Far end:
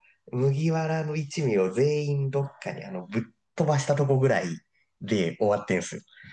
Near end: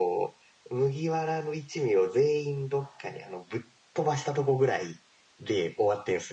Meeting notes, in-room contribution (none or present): none